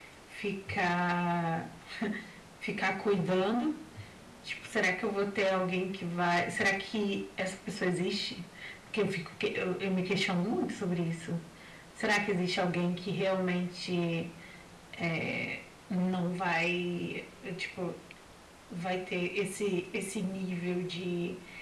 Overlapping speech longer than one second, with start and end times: none

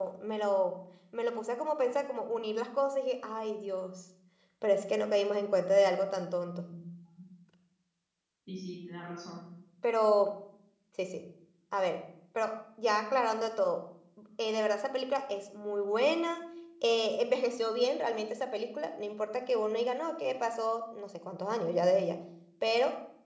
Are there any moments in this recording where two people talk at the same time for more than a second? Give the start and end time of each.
none

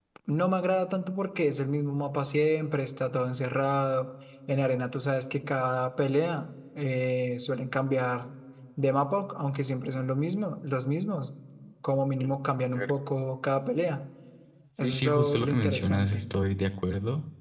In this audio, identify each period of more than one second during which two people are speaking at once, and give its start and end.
14.8-16.2

